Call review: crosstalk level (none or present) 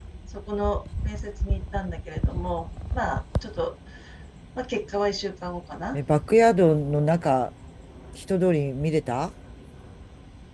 none